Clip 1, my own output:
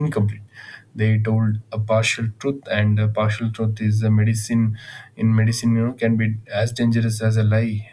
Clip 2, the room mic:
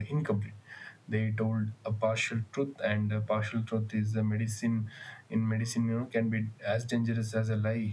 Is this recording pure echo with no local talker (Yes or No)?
Yes